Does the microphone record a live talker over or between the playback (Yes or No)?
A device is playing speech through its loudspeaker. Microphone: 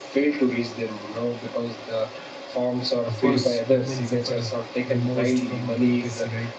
Yes